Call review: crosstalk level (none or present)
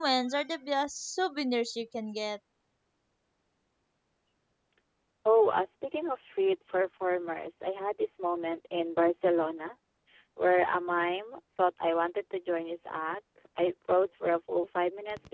none